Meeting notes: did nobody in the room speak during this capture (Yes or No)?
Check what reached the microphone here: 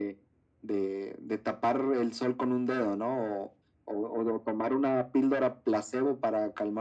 Yes